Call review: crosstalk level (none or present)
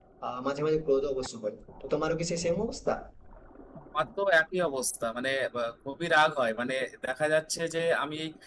none